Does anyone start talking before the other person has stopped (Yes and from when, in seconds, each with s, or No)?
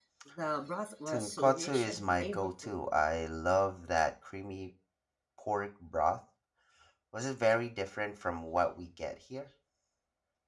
Yes, from 1.1 s